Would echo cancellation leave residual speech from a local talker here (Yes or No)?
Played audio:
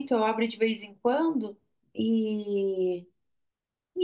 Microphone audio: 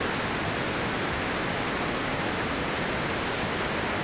No